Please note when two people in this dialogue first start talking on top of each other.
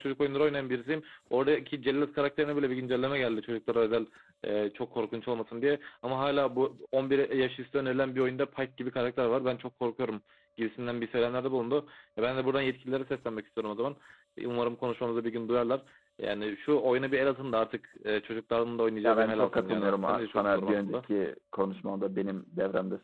19.0 s

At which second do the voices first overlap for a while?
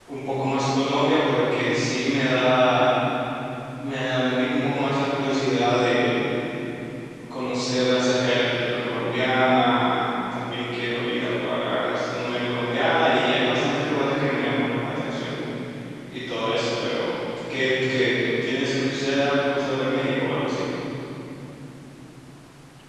none

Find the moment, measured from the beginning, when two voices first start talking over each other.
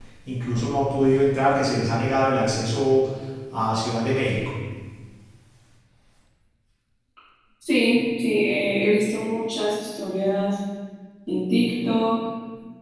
none

